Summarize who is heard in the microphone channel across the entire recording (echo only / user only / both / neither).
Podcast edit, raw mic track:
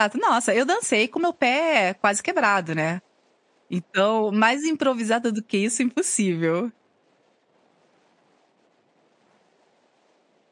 user only